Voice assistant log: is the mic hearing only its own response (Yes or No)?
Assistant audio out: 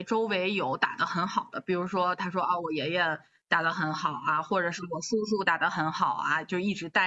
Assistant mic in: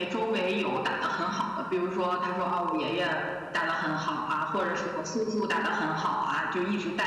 Yes